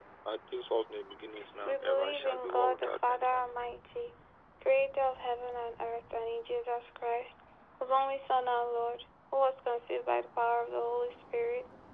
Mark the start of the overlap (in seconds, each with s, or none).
1.6 s